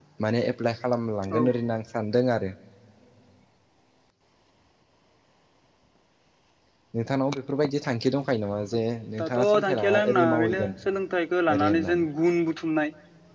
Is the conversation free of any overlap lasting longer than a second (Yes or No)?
No